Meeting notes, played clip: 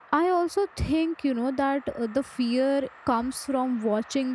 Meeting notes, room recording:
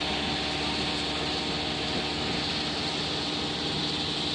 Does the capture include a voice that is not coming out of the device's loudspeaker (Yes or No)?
No